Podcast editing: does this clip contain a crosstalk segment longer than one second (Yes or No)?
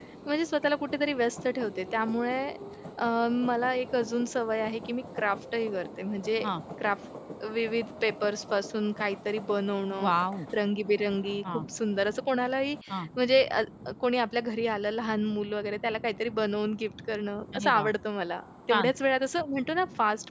No